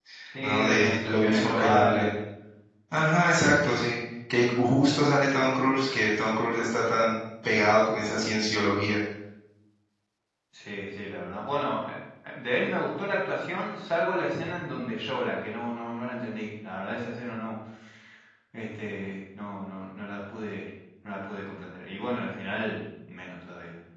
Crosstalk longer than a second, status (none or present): present